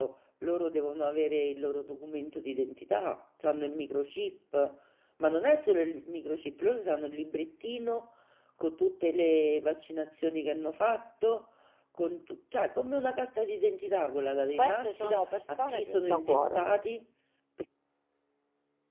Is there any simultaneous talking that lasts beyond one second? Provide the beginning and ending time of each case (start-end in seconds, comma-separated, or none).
14.5-16.6